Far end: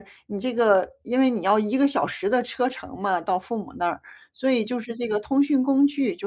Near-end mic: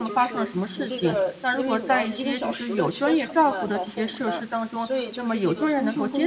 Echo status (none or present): present